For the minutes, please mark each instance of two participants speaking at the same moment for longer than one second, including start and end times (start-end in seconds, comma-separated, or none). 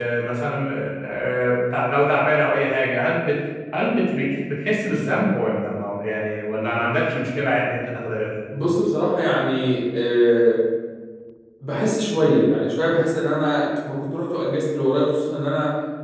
none